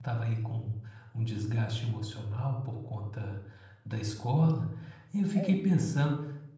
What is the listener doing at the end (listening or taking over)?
listening